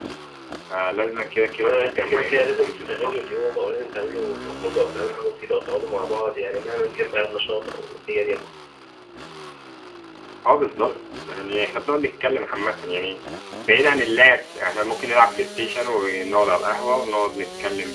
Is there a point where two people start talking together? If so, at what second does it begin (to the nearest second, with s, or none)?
2 s